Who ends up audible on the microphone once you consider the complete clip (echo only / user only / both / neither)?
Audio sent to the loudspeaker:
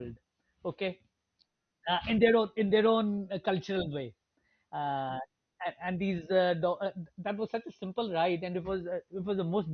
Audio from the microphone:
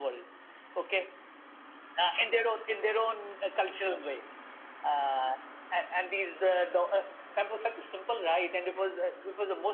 echo only